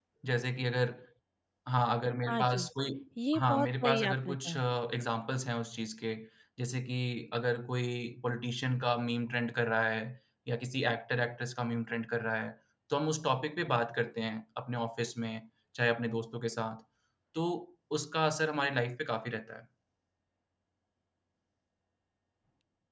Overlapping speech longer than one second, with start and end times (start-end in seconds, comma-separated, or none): 3.4-4.6